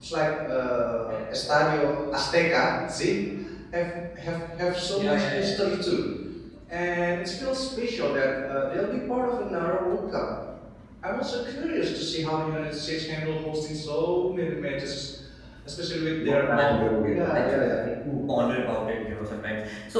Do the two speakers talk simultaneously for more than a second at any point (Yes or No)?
Yes